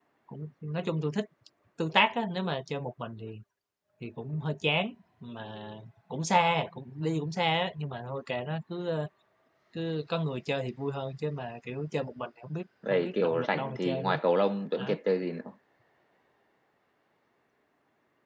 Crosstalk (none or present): present